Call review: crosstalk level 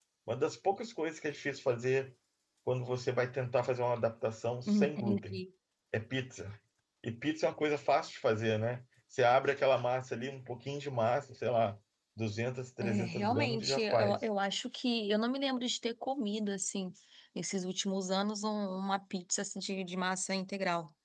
present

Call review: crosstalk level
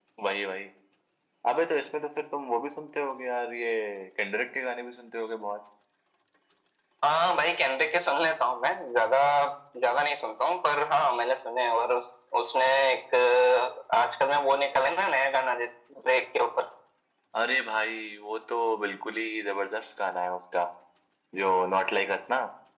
none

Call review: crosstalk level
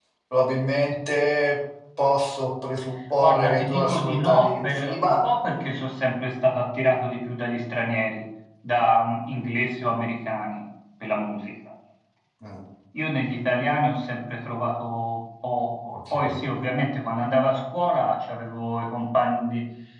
present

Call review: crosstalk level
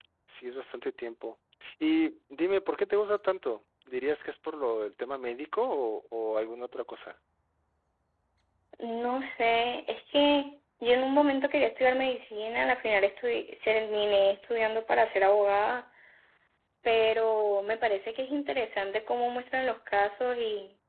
none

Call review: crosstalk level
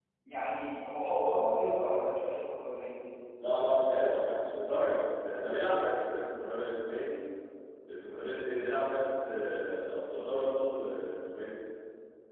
none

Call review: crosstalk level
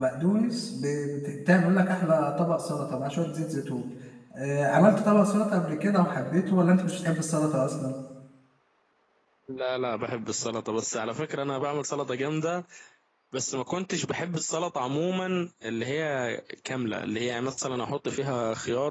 none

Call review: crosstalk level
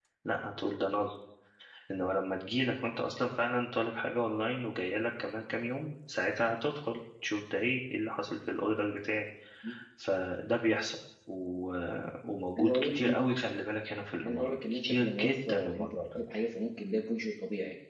present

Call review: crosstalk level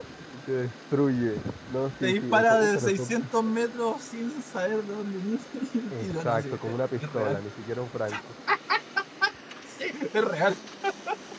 present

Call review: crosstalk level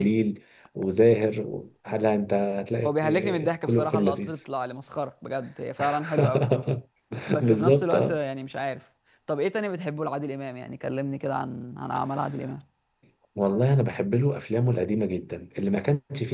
present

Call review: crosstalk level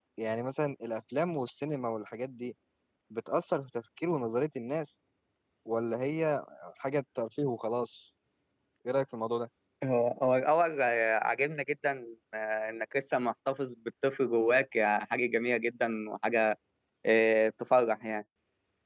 none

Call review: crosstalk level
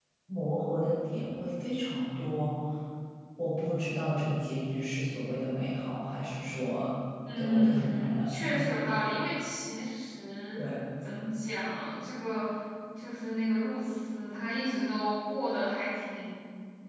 present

